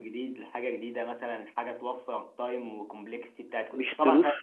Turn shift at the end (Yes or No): Yes